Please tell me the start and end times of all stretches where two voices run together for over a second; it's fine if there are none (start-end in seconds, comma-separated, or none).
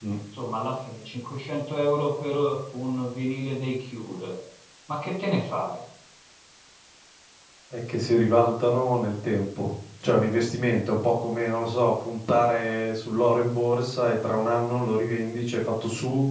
none